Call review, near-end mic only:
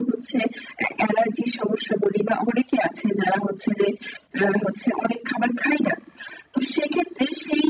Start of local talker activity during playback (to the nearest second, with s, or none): none